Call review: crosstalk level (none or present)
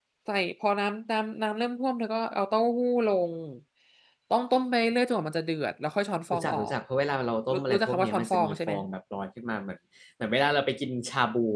present